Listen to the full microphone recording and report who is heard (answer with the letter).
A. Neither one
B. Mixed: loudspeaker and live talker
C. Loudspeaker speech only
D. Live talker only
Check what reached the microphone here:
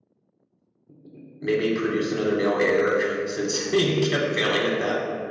D